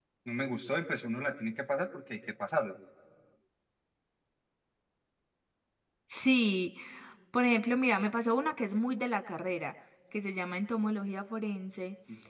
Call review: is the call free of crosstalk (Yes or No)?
Yes